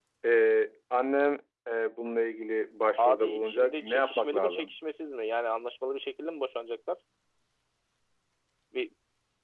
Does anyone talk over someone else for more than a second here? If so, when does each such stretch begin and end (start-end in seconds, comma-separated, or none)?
3.0-4.7